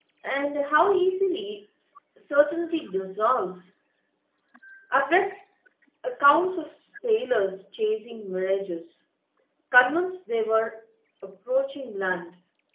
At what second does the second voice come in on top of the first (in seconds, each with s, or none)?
none